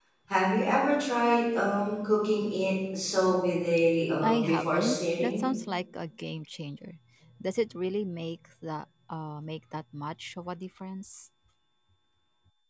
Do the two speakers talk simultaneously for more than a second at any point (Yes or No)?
Yes